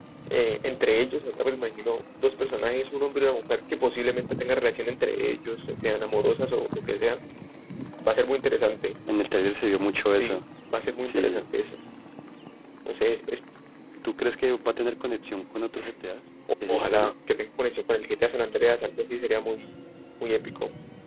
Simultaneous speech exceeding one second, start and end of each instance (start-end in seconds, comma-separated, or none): none